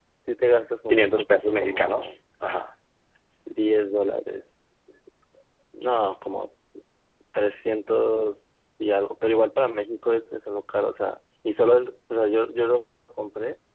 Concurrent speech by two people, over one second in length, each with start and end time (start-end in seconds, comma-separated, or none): 0.9-2.2